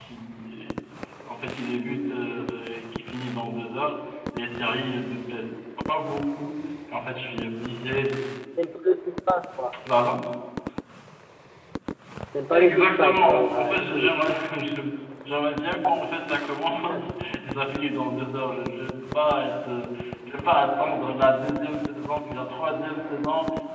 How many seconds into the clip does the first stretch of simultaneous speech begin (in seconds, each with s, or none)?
12.5 s